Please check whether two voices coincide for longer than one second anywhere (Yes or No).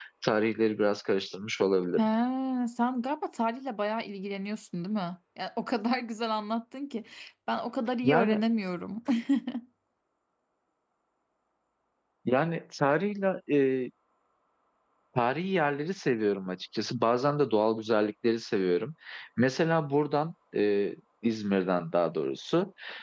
No